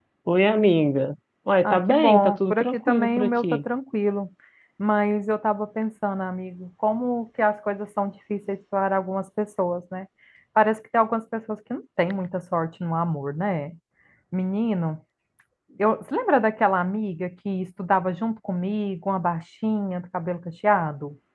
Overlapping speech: Yes, from 1.6 s

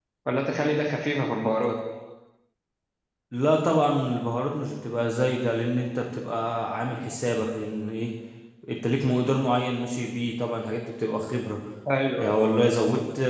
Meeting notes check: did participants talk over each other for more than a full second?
No

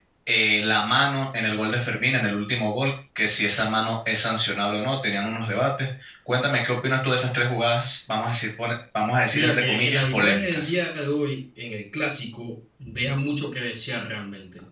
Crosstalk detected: Yes, from 9.3 s

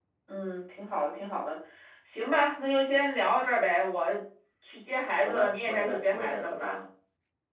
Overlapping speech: Yes, from 5.2 s

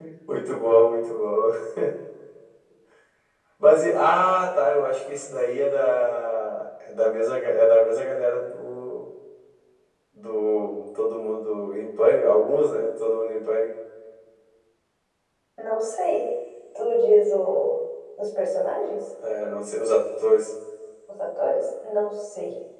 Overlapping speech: No

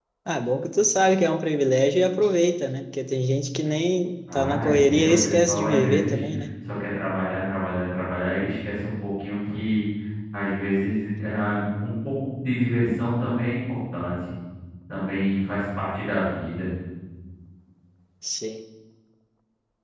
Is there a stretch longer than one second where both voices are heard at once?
Yes, from 4.3 s

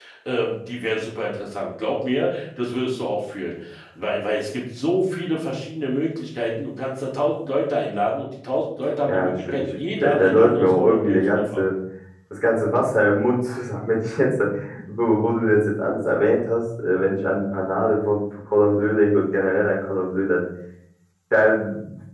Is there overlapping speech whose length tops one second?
Yes, from 8.8 s

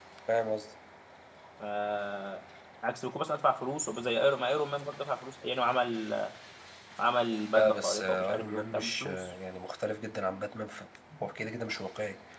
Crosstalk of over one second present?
Yes, from 7.5 s

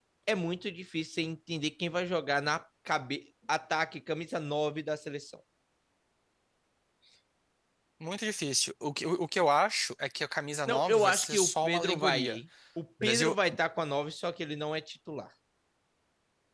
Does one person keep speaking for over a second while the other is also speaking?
Yes, from 10.7 s

